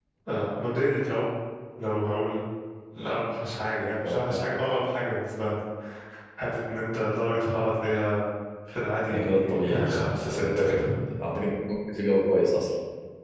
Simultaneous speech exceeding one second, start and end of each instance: 9.1-10.8

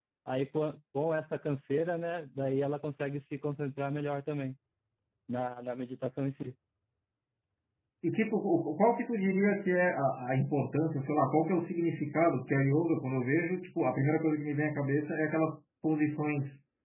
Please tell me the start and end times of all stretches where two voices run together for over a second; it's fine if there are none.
none

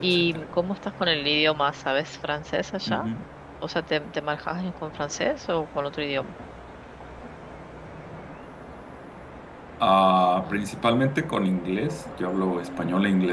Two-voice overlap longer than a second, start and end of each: none

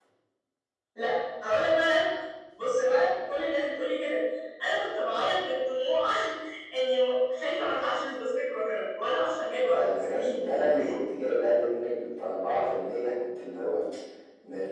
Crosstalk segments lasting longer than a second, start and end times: 9.6-11.0

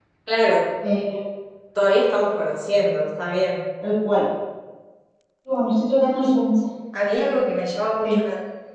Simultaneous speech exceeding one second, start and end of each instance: none

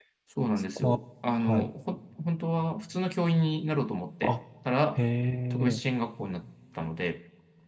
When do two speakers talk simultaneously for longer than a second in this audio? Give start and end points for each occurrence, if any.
none

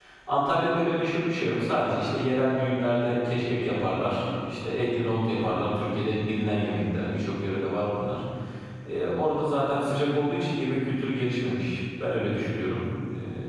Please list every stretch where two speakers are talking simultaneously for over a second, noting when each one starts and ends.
none

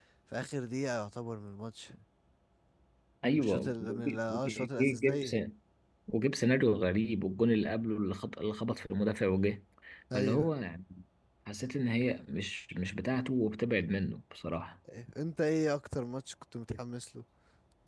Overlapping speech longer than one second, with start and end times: 3.4-5.3

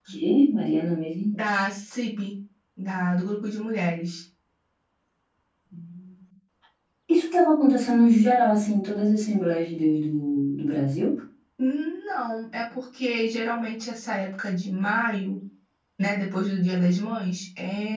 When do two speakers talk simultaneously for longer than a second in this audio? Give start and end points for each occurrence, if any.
none

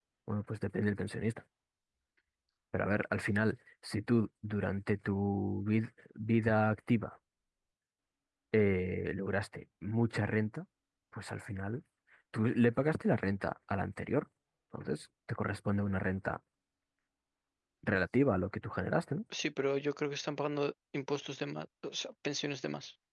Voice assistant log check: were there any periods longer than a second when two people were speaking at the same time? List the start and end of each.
none

